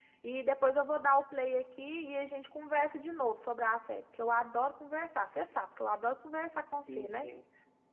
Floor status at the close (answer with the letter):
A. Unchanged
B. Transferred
B